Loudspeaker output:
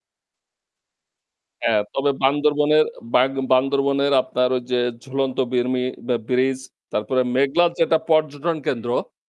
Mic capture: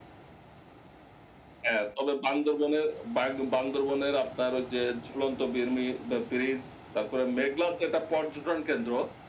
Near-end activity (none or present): none